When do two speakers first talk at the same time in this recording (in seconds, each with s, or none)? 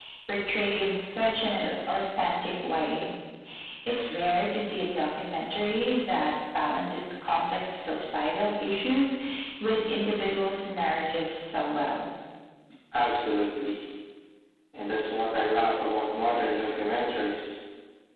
none